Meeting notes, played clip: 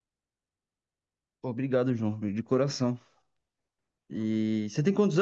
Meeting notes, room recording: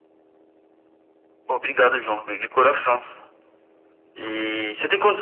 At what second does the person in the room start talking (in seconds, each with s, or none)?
none